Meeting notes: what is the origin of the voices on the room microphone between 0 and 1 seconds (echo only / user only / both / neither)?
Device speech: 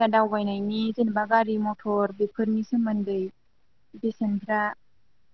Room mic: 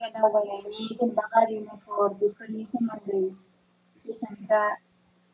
echo only